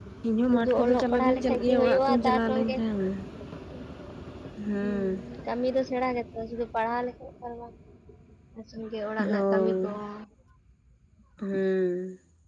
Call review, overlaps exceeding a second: present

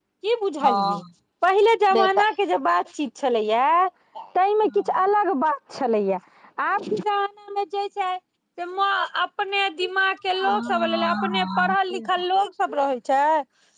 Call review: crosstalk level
present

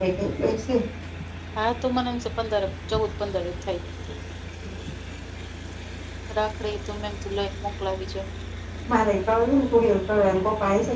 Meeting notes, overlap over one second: none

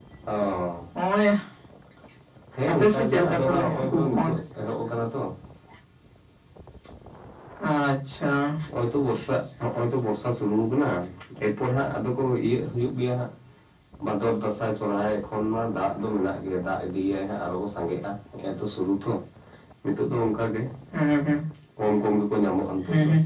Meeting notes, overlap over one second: present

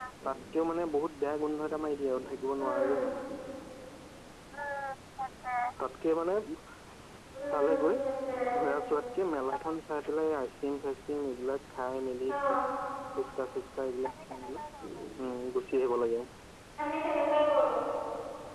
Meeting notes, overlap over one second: none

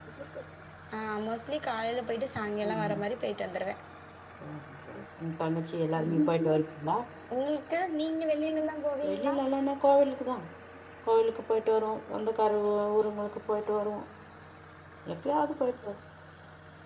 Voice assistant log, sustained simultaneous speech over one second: none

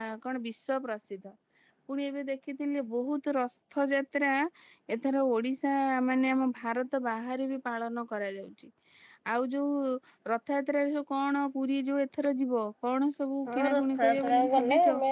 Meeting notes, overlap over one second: present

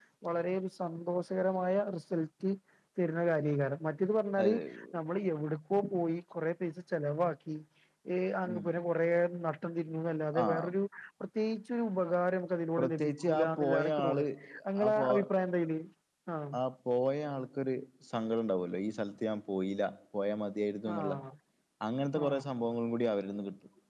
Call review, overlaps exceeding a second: present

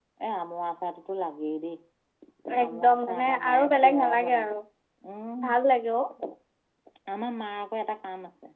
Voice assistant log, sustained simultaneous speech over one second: present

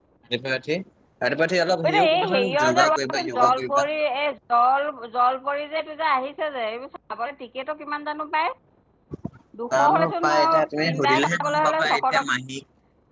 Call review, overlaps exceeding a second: present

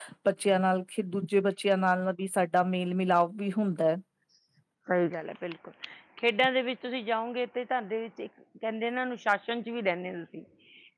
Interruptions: none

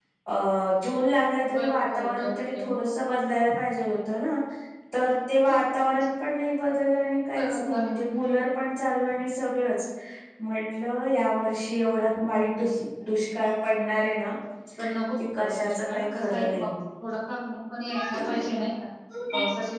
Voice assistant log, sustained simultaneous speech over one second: present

